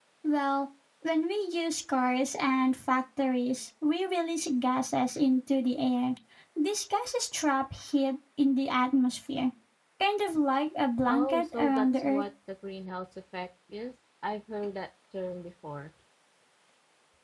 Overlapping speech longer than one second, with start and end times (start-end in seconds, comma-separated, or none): 11.0-12.2